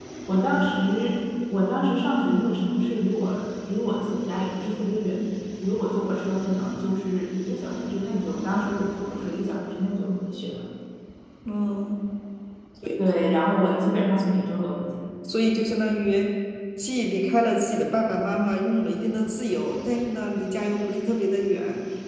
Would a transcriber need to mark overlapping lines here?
No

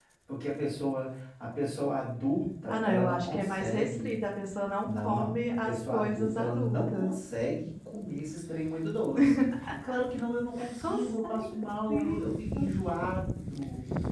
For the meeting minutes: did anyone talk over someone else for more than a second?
Yes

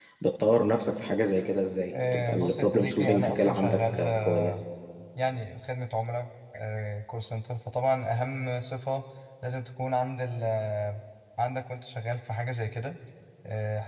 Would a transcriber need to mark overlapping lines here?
Yes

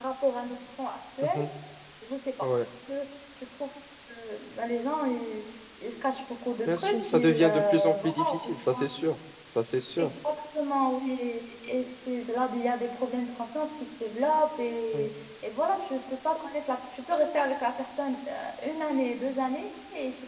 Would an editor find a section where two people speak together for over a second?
Yes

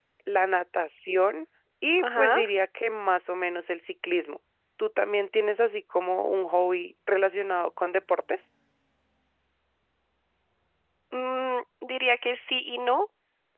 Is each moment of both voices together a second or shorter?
Yes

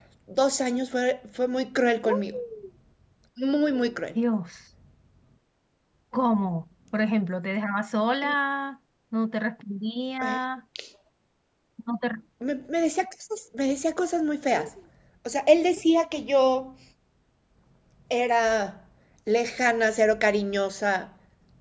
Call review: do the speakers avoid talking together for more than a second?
Yes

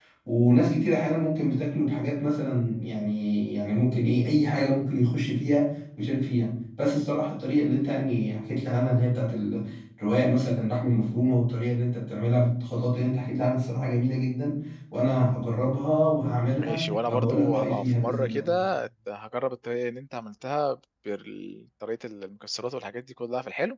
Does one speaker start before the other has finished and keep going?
Yes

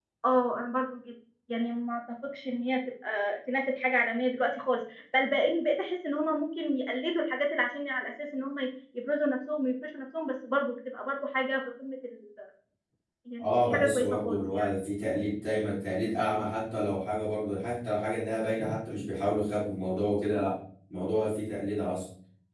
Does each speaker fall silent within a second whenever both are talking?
No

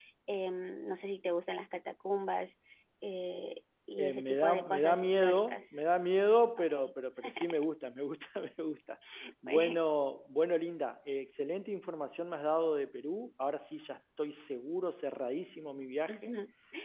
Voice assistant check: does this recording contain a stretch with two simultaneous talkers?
Yes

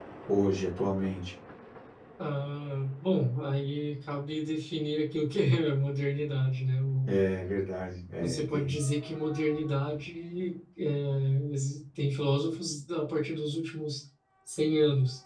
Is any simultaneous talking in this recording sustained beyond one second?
No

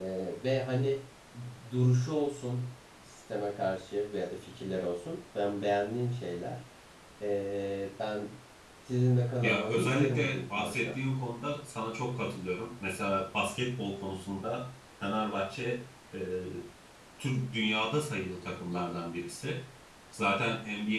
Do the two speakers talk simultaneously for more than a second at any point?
Yes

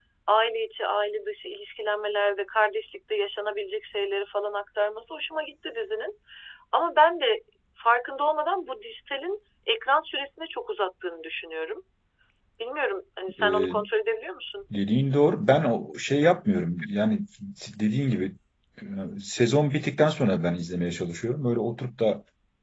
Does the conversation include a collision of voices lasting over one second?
No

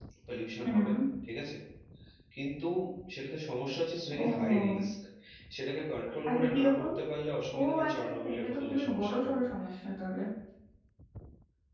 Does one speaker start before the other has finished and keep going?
Yes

